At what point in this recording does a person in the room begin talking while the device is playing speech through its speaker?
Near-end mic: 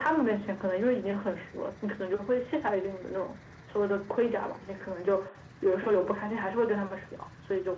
none

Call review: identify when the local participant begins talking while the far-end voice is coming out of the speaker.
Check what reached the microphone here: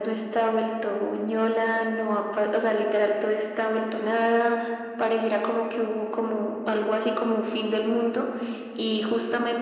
none

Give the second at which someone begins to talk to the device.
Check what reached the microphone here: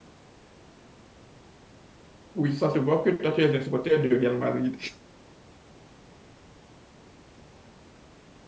2.3 s

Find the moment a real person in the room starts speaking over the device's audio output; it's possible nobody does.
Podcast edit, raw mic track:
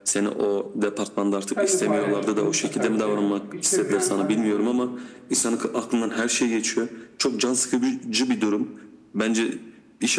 1.5 s

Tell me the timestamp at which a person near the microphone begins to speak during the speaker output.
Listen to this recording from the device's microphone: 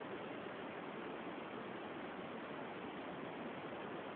none

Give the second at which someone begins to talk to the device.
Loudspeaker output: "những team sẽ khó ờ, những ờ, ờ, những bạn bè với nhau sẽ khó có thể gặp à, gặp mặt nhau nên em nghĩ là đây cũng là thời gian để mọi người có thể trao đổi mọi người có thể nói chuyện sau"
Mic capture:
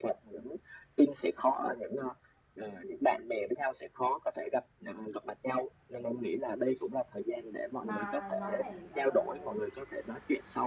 7.8 s

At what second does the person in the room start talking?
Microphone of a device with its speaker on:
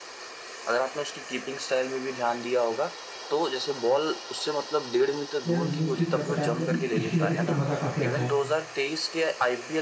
5.5 s

